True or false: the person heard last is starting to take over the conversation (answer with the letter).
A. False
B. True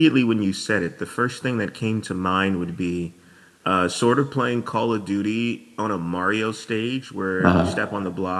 A